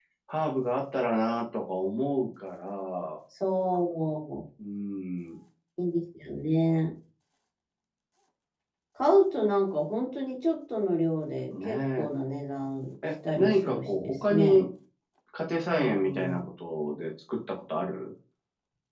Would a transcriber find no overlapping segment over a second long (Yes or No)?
No